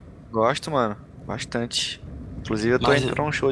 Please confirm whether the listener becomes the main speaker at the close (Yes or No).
No